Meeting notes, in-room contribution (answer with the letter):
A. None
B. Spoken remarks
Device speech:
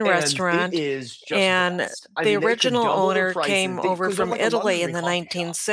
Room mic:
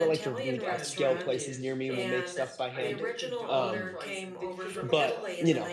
B